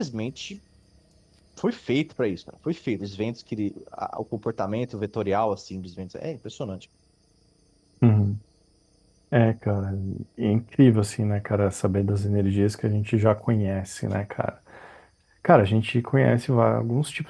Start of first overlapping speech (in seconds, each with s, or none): none